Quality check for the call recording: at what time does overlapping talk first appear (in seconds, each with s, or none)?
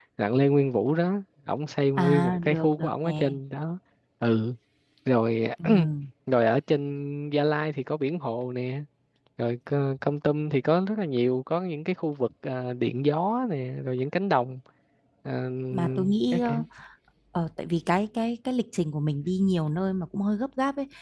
2.0 s